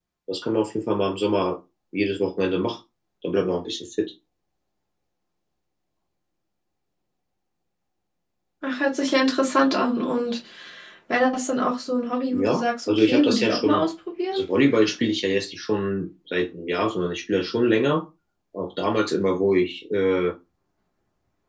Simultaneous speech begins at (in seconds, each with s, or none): 12.3 s